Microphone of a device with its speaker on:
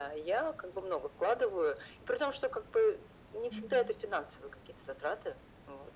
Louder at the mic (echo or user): echo